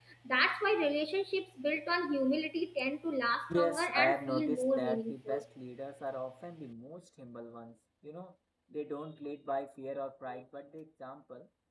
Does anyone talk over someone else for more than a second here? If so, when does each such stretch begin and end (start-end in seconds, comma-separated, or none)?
3.5-5.4